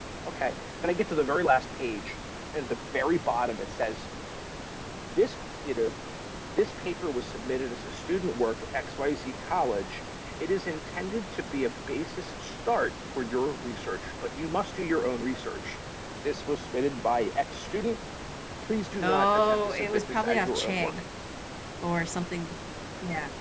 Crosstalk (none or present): present